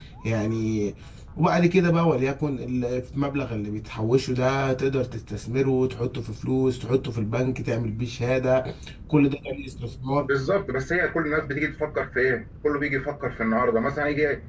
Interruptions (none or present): none